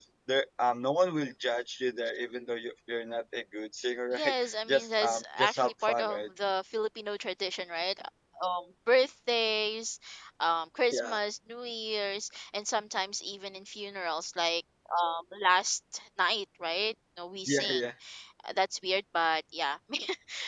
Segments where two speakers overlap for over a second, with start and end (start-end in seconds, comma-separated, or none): 4.1-6.2